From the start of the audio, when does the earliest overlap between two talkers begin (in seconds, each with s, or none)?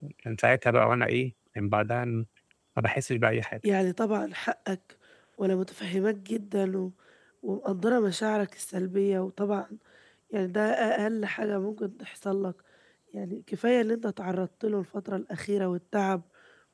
none